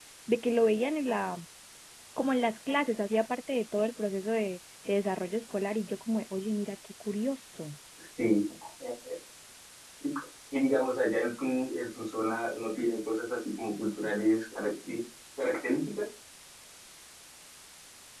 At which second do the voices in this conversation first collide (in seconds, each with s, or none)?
none